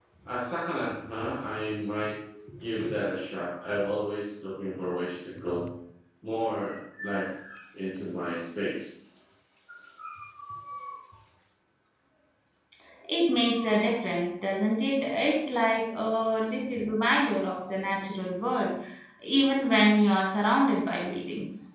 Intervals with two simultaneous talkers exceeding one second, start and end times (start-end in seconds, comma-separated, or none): none